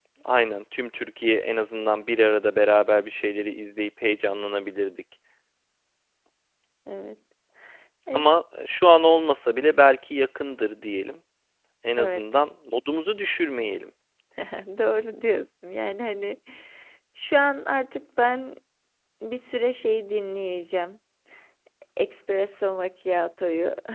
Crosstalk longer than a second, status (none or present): none